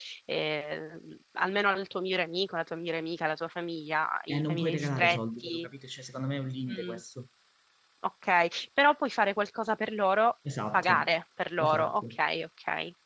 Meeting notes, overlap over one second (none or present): present